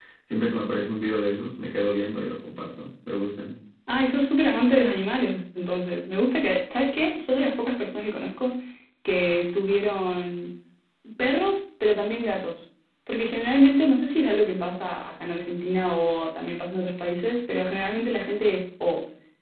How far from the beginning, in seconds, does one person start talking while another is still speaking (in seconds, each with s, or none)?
none